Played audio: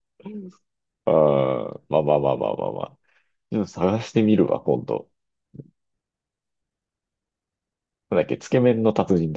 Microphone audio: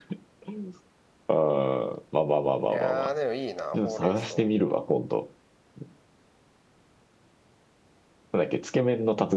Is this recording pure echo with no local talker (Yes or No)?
No